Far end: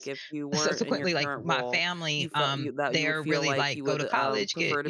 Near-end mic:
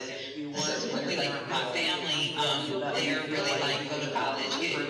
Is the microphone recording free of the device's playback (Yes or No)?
No